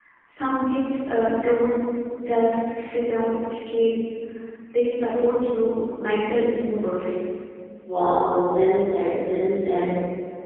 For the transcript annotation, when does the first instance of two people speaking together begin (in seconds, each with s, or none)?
none